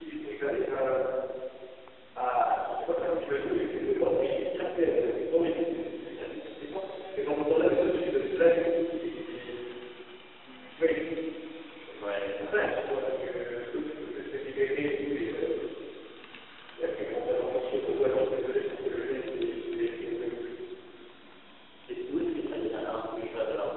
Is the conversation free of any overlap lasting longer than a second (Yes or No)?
Yes